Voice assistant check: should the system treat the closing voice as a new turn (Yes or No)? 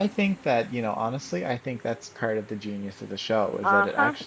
No